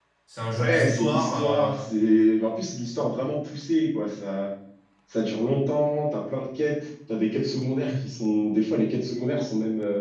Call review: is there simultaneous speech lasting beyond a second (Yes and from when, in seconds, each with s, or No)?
Yes, from 0.6 s